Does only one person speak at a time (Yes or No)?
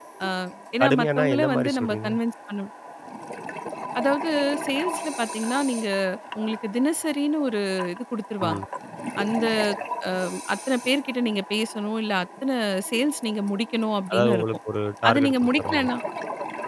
No